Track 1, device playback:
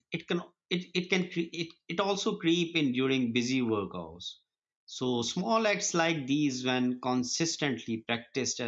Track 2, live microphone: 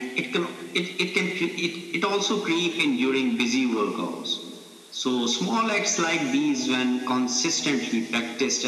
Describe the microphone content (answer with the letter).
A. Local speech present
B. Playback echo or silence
B